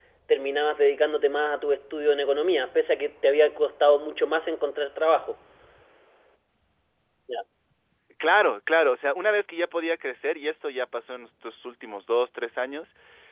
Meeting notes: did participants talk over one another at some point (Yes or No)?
No